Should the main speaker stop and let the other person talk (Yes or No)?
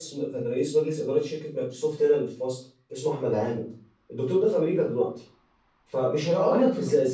No